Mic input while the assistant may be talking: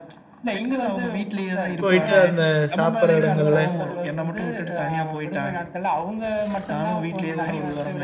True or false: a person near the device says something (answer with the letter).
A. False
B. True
B